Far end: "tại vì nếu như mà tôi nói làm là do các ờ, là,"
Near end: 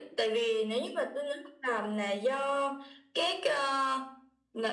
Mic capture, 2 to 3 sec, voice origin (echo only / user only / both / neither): echo only